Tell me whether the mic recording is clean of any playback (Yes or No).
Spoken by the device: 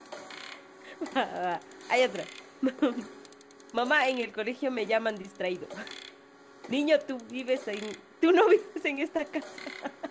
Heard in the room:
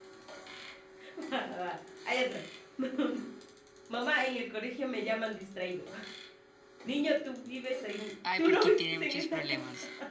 No